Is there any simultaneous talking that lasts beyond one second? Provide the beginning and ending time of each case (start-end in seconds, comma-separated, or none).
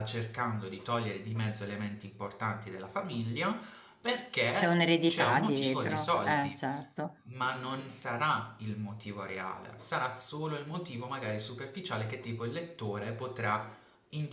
4.5-6.6